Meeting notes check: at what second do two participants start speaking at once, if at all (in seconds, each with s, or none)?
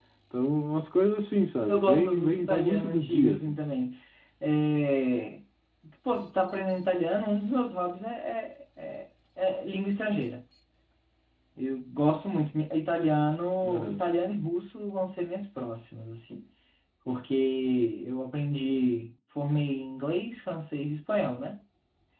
1.7 s